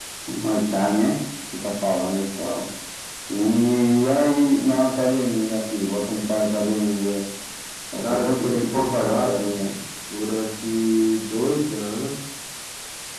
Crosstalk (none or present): present